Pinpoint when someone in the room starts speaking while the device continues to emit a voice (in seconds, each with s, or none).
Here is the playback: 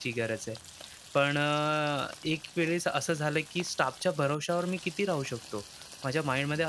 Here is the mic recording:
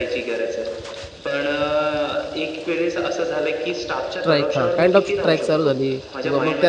4.1 s